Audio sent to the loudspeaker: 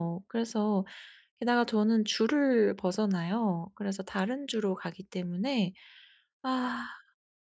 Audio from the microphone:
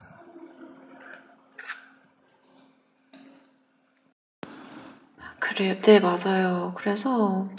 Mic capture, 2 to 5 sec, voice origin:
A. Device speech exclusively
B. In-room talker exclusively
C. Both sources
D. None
D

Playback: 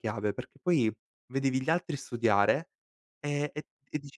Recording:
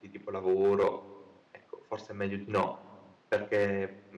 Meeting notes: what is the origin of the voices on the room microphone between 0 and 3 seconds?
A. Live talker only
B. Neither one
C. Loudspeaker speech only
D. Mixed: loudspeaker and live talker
A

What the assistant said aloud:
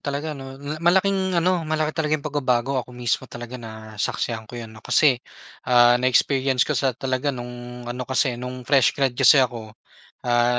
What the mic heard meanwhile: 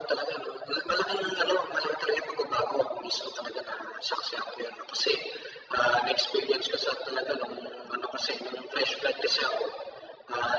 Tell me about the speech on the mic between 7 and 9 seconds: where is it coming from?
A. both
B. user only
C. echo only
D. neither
C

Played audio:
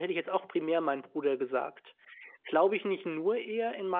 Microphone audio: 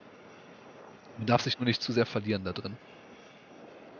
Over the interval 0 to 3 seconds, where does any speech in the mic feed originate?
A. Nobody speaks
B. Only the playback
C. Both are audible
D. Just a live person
D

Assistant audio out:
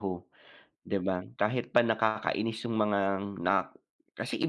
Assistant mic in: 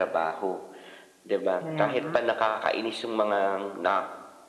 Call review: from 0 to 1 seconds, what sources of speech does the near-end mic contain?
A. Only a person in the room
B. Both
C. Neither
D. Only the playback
D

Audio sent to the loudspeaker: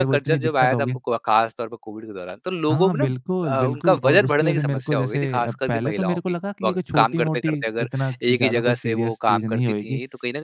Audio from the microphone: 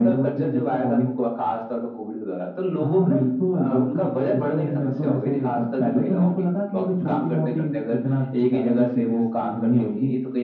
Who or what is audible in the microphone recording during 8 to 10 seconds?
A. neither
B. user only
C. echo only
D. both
C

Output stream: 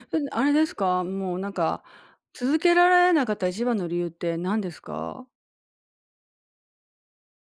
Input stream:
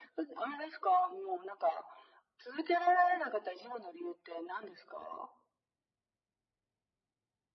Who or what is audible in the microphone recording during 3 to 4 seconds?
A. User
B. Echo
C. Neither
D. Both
B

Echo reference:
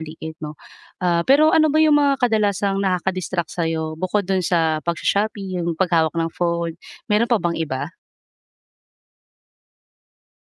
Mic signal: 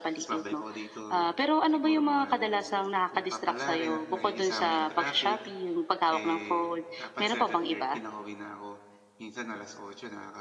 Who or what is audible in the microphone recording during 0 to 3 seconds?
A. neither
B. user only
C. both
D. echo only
C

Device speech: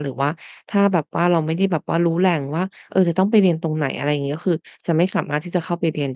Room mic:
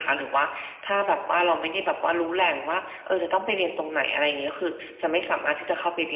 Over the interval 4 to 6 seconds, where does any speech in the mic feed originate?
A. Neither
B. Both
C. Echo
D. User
C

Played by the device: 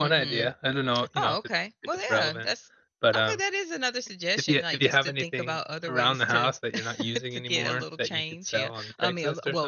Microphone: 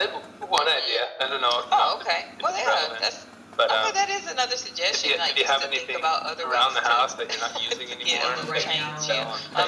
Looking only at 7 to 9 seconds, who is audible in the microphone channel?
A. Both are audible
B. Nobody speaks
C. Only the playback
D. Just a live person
A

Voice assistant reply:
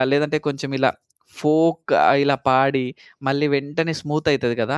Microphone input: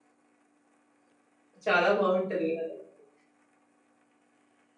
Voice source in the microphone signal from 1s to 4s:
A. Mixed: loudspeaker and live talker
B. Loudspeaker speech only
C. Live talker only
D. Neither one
C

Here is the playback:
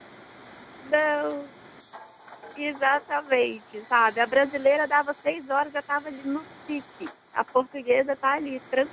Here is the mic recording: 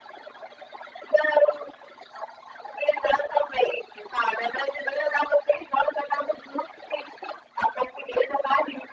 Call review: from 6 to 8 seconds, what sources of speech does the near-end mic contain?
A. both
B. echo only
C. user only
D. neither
B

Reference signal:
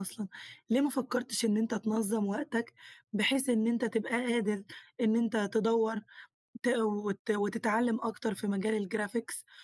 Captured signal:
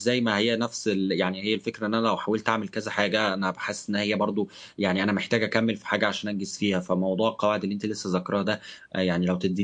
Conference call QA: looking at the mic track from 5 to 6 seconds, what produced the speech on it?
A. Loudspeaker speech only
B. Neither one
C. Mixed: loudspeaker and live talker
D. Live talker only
D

